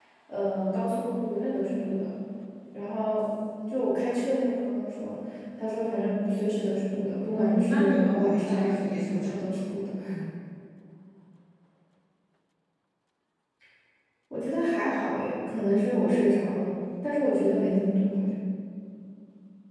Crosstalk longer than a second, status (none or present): present